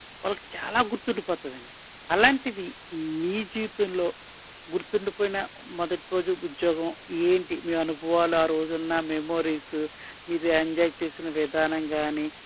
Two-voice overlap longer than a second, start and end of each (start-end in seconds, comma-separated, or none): none